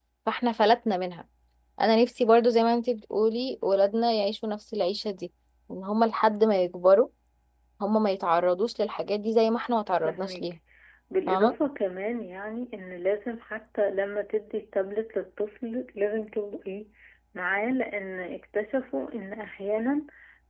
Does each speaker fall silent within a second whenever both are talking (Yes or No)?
Yes